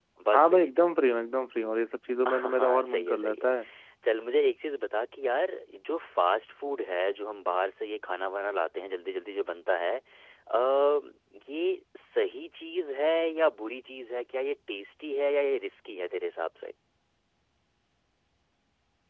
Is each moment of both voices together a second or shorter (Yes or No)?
No